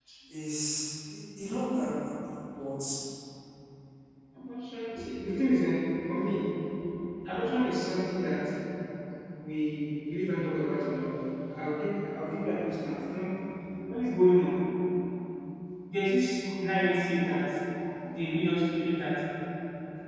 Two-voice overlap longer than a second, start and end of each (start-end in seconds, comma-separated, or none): none